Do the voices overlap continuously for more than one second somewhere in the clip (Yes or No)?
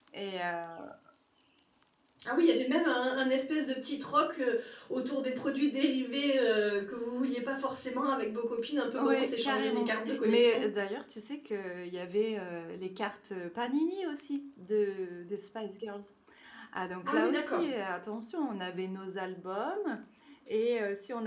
Yes